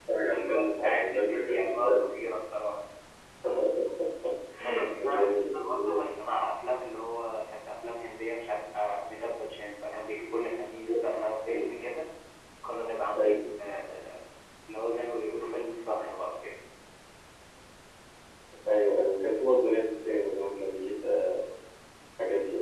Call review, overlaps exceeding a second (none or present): present